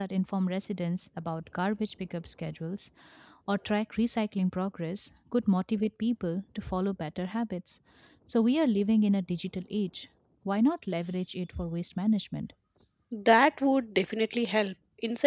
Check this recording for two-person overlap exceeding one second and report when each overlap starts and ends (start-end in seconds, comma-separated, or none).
none